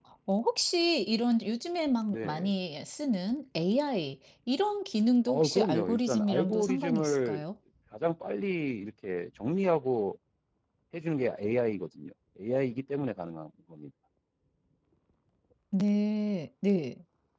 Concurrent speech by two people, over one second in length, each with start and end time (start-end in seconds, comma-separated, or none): 5.3-7.4